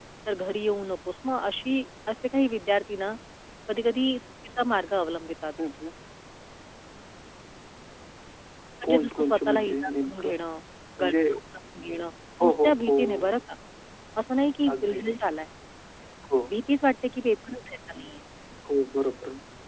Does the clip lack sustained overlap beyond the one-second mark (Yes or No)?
No